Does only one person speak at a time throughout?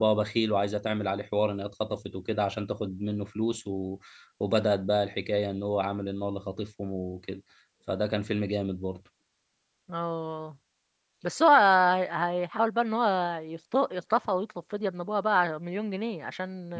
Yes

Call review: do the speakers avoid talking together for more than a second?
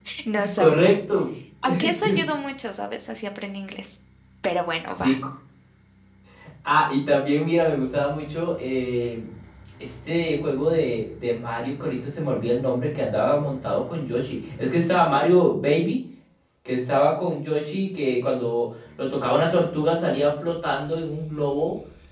Yes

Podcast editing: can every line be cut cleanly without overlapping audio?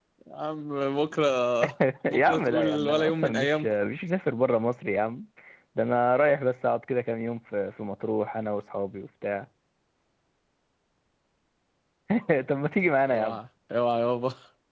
No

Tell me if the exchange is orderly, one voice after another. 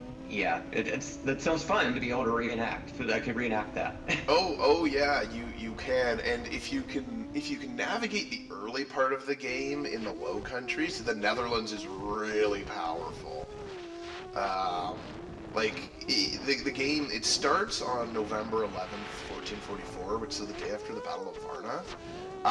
Yes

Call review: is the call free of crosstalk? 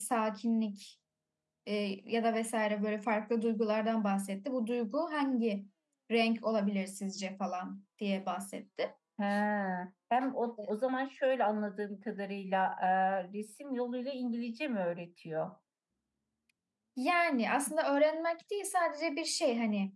Yes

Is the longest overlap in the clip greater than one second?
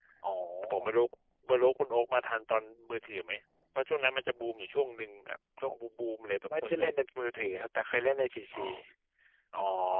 No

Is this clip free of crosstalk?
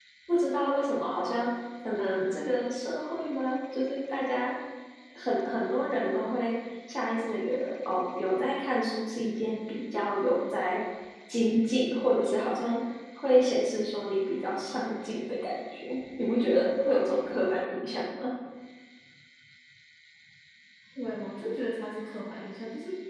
Yes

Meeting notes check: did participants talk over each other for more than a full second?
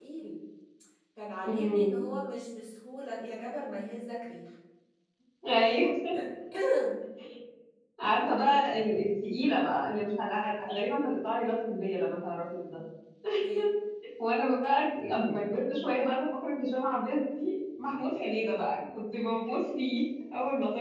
No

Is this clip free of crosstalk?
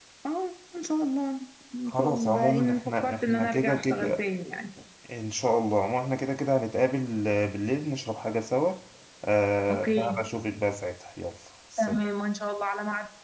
No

